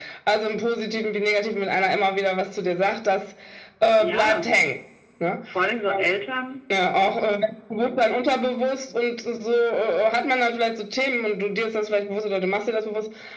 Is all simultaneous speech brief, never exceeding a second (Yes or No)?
Yes